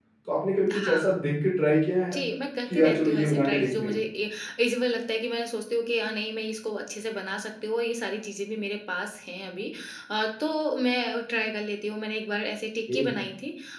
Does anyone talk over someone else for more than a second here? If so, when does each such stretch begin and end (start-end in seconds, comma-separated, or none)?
2.7-4.0